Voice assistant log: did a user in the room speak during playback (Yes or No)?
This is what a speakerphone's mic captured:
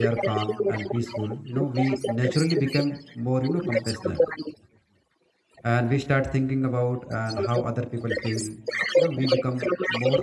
Yes